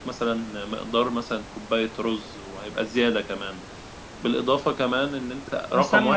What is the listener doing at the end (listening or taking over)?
taking over